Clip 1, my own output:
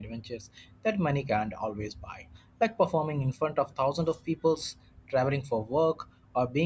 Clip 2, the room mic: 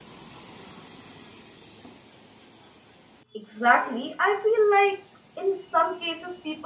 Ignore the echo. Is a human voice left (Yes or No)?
Yes